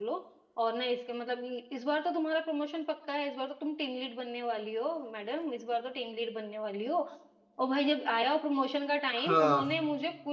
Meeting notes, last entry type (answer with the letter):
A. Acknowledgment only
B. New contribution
A